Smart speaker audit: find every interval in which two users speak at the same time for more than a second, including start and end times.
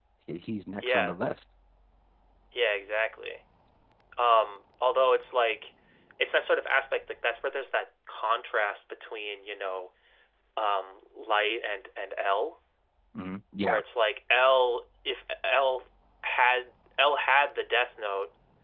none

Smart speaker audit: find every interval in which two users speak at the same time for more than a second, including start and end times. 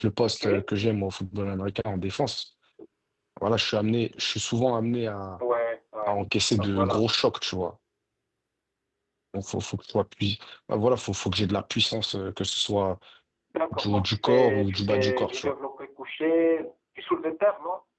13.7-15.5

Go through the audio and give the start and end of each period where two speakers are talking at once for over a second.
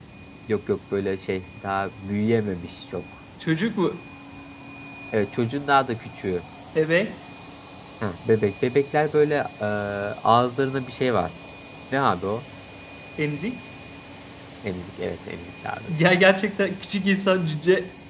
none

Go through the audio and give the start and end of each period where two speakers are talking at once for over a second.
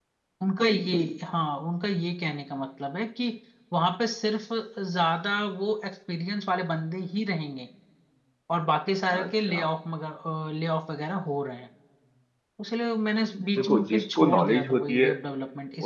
13.6-15.1

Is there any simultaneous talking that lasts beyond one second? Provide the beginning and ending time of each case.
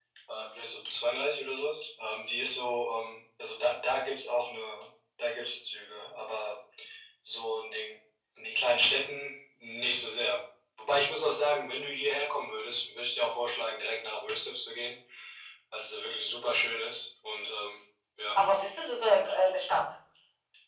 none

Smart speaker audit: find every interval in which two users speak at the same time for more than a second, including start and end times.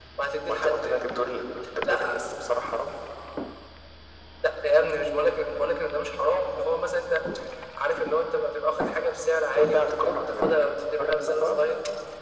9.6-11.6

